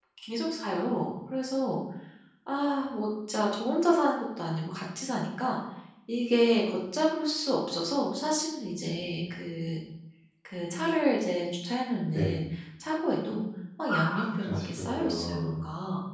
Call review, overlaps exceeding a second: present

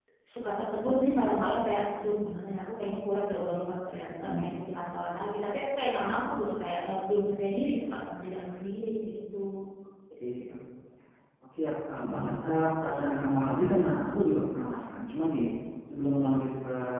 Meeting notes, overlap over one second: none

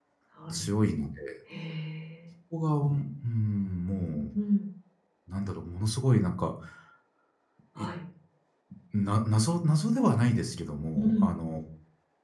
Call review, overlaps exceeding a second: none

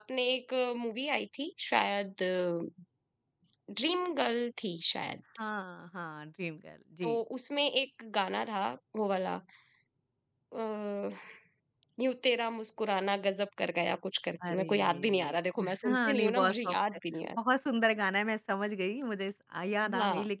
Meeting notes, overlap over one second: present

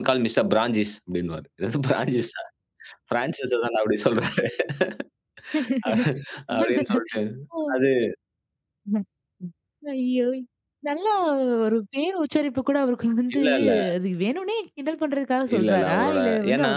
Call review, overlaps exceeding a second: present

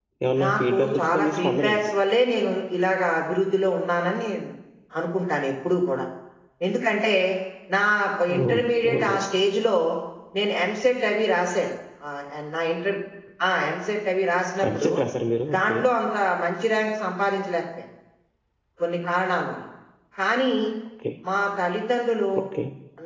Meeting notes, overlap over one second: present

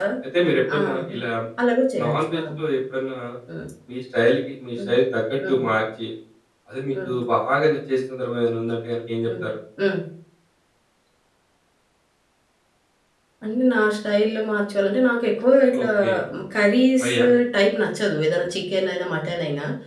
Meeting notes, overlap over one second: none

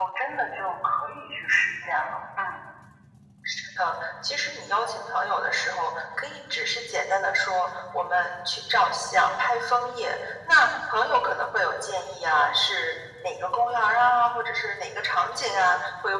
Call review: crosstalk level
none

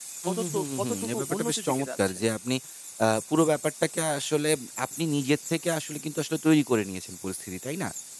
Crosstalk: present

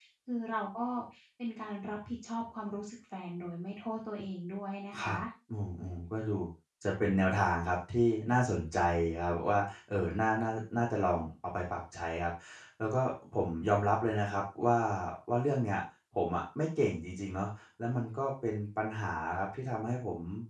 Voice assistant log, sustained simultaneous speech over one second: none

